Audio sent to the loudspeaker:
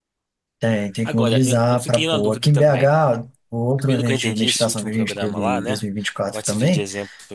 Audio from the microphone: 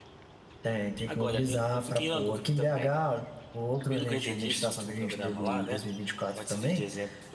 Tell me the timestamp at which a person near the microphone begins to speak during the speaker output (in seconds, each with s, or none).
none